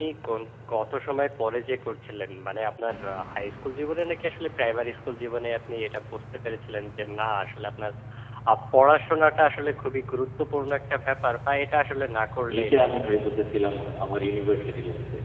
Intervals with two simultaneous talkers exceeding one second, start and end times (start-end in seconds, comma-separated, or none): none